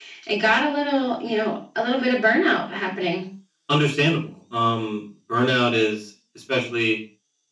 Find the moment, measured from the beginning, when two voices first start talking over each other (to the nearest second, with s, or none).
none